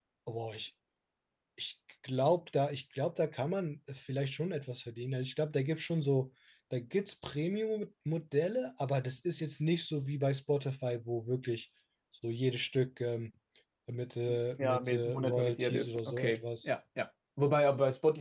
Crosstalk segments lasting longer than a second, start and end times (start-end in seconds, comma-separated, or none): 14.6-16.7